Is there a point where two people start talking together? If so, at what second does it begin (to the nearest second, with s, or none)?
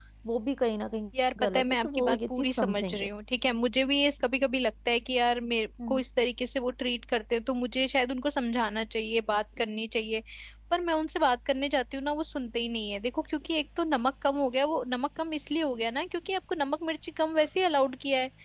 1 s